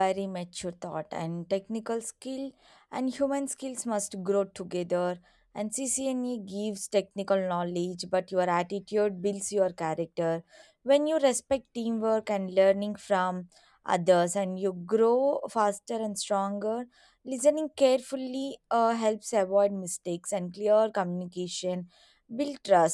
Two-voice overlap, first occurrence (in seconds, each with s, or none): none